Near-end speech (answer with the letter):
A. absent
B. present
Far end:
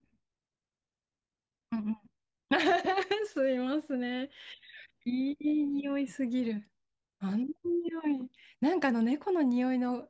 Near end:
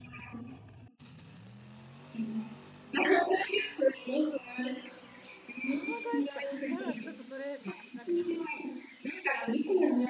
B